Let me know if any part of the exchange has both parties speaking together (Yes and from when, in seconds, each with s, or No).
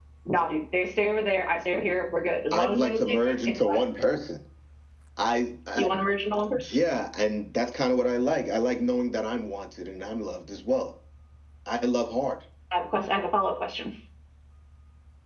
Yes, from 2.5 s